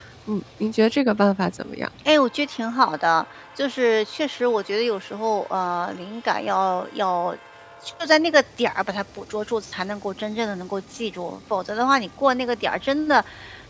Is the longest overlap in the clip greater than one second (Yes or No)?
No